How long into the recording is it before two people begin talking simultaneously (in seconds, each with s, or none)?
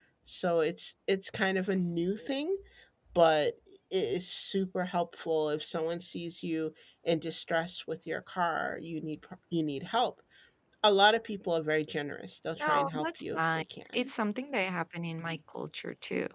12.6 s